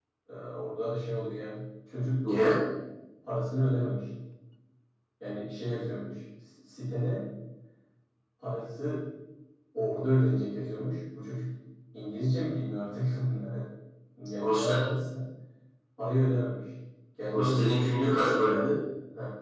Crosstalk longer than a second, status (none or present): present